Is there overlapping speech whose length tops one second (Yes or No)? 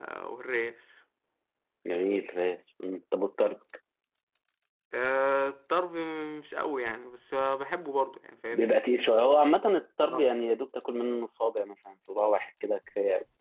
No